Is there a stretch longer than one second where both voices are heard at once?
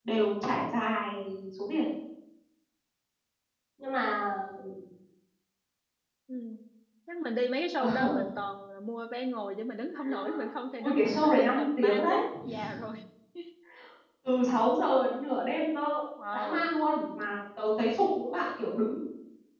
Yes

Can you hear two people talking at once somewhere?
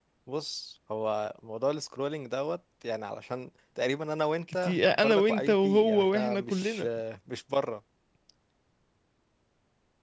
Yes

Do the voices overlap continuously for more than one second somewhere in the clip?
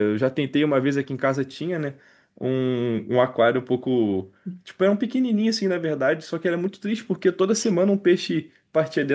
No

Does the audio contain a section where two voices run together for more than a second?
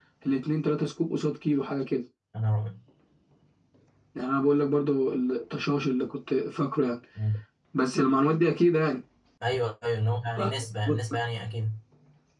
No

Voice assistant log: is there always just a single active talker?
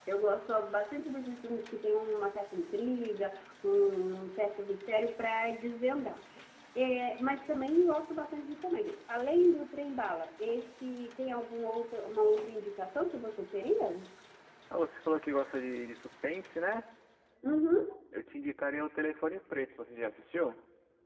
Yes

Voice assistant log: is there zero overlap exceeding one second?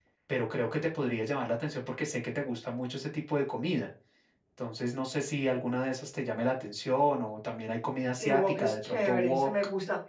No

